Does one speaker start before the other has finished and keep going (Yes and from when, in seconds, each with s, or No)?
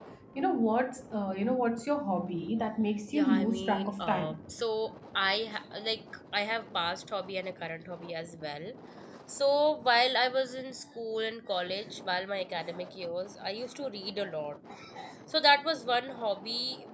Yes, from 3.1 s